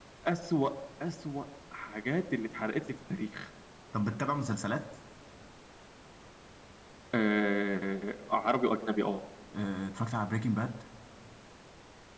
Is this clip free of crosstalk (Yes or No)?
Yes